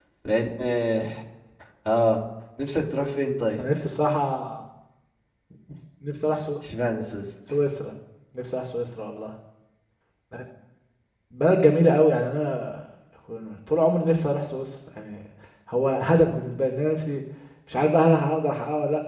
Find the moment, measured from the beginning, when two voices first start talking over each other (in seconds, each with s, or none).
none